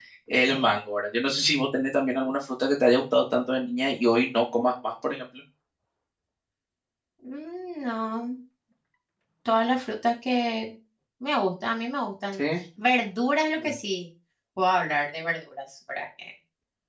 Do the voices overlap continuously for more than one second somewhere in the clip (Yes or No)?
No